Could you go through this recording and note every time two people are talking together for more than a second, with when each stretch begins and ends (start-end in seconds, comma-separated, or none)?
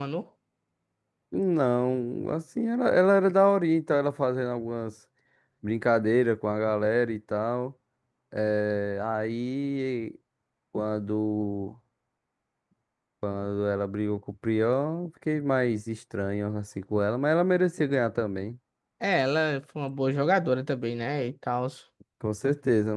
none